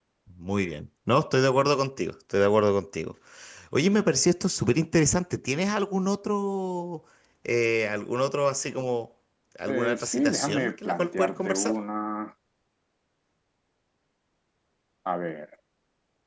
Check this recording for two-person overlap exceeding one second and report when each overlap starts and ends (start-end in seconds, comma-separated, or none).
9.7-11.8